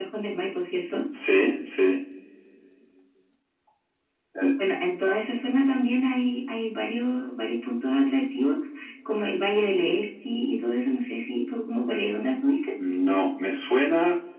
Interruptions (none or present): none